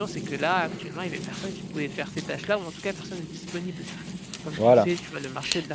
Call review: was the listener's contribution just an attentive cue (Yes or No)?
Yes